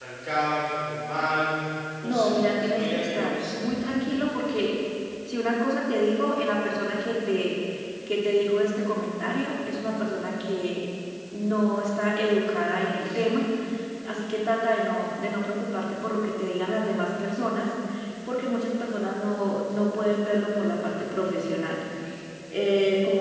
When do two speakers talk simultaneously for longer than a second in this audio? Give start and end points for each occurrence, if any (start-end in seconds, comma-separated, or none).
2.0-3.6